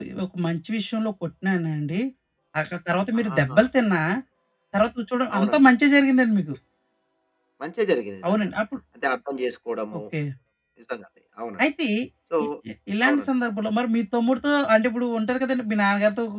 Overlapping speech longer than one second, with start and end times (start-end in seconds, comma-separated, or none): none